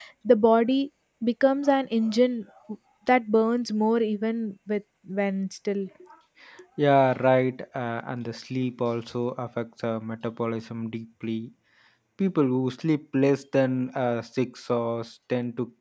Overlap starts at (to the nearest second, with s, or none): none